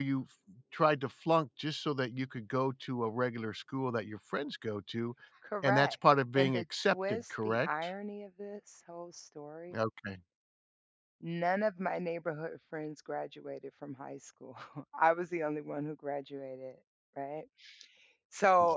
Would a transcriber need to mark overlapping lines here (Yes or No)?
Yes